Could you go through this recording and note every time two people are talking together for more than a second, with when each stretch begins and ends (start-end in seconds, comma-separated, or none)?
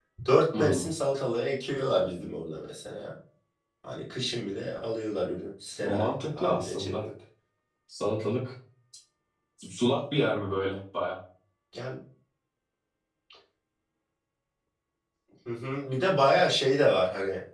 5.8-7.0